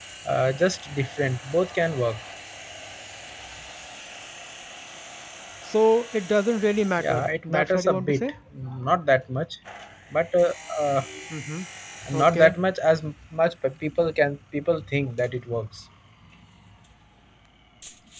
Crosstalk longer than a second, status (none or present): present